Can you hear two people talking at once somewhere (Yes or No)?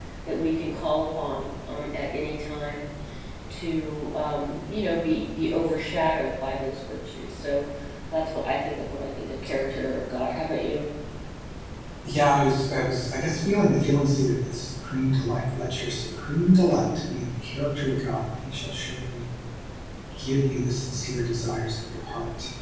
No